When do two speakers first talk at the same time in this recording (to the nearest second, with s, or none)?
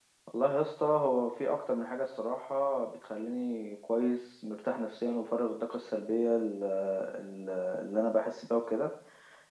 none